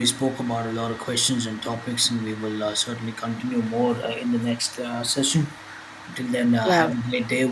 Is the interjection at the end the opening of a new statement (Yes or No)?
No